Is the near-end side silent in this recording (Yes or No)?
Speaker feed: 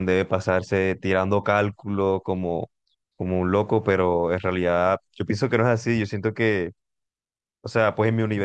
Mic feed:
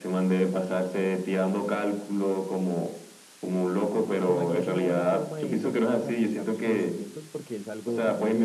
No